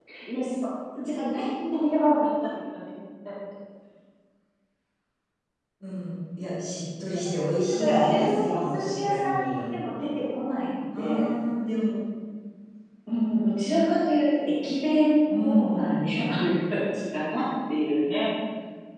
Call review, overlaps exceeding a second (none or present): present